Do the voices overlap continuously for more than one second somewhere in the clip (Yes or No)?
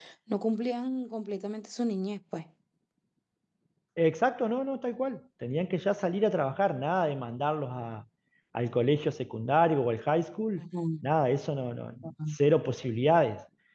No